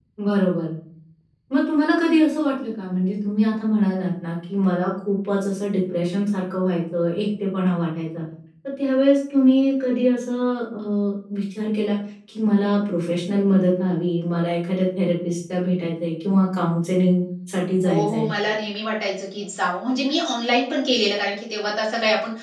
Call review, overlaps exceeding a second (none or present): none